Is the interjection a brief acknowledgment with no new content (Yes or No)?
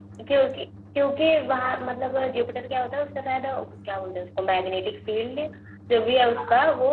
Yes